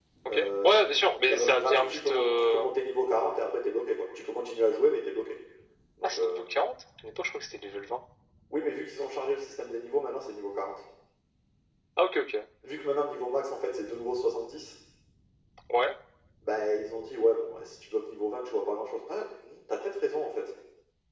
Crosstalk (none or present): present